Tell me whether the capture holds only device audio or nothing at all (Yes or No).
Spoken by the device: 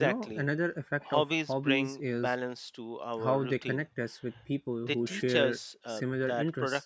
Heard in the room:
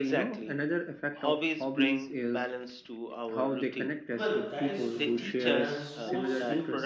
No